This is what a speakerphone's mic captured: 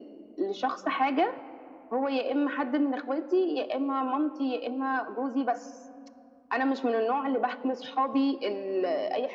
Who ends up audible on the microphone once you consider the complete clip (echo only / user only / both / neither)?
echo only